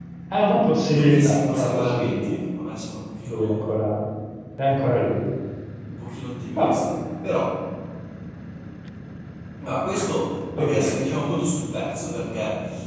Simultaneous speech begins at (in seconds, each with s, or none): 0.9 s